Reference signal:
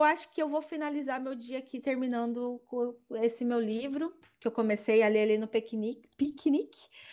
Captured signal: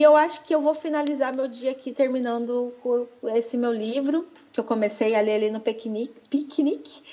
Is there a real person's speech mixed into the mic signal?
No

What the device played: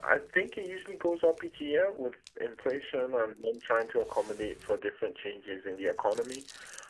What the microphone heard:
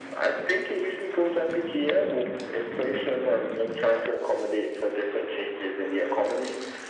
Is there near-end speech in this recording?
No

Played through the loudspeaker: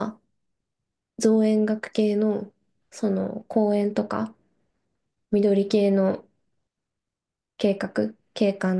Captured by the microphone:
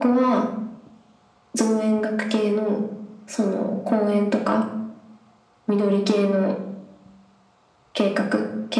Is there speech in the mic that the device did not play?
No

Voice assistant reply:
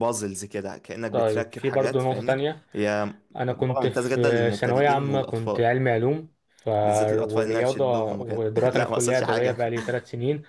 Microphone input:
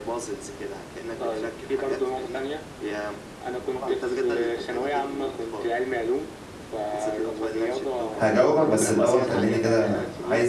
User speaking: Yes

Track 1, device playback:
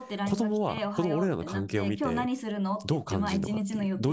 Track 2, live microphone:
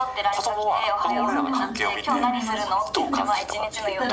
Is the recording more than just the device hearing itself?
Yes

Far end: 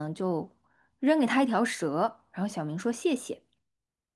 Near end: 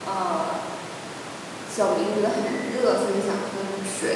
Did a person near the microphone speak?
Yes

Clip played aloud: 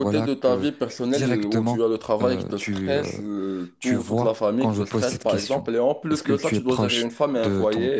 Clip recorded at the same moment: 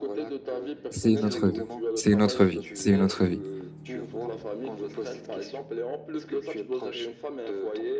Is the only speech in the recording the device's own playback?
No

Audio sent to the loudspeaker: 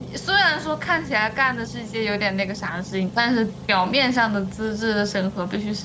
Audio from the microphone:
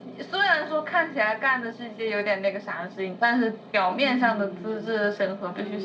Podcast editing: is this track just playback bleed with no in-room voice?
No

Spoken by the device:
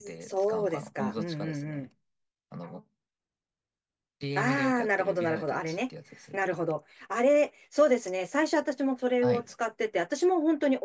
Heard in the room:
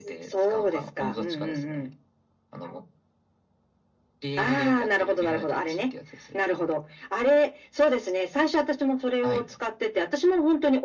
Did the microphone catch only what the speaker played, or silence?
Yes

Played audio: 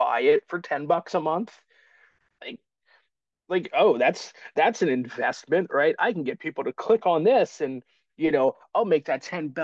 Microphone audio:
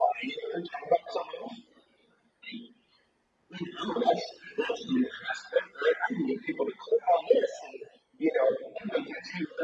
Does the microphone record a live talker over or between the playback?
No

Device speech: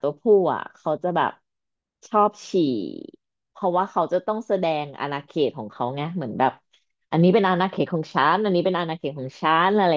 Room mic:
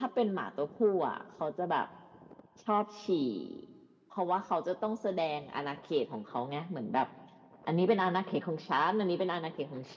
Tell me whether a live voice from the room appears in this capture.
No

